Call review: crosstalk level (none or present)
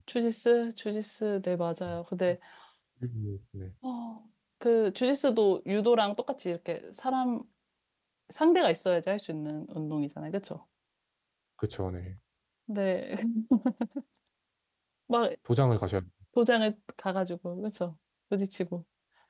none